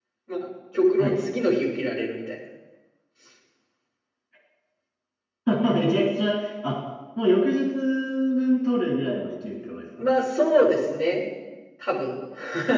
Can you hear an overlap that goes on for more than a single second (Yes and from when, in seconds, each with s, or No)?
No